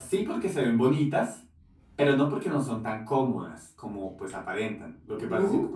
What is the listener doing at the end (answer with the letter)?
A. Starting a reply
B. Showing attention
B